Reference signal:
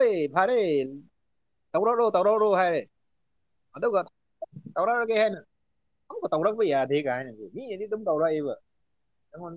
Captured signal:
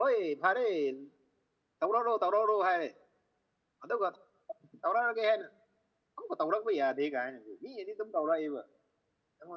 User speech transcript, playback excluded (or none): none